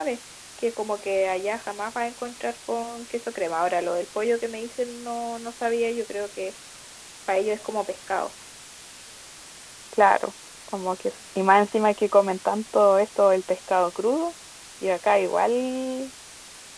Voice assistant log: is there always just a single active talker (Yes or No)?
Yes